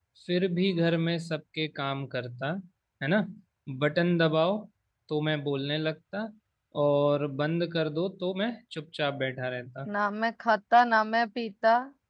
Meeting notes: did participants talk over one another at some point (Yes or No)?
No